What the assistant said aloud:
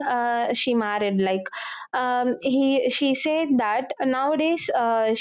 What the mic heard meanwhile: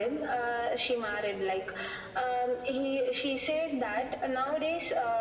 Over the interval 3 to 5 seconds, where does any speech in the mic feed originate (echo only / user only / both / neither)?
echo only